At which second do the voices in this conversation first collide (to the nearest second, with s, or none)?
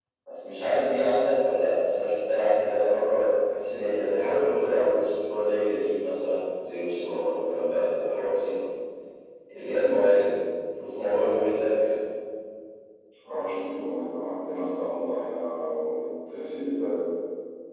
none